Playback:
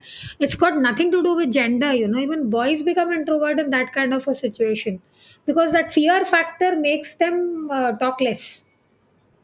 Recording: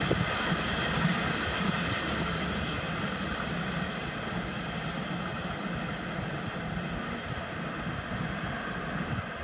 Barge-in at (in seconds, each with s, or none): none